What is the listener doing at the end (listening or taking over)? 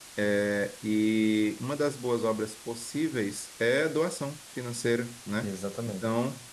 listening